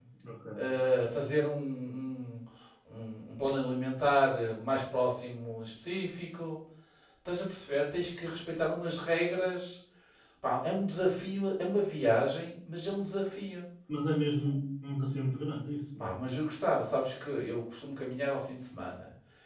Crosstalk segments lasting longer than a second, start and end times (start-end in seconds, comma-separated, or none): none